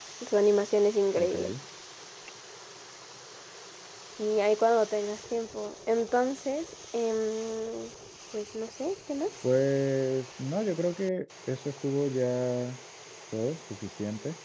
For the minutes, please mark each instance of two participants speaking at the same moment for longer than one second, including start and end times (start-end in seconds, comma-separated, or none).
none